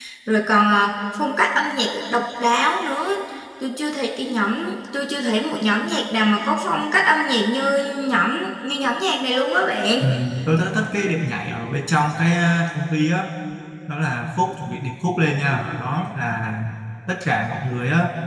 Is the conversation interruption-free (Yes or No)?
Yes